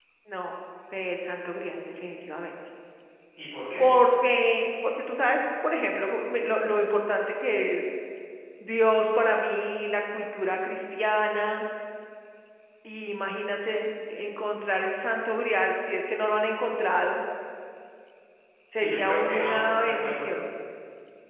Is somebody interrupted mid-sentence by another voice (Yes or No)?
Yes